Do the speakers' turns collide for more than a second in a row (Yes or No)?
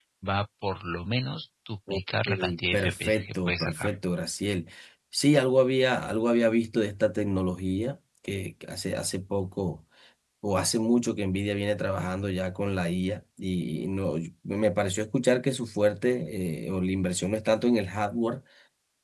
Yes